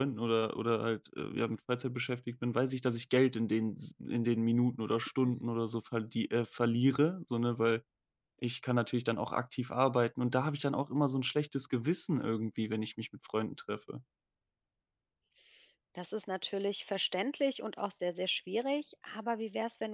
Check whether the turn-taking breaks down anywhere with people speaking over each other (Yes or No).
No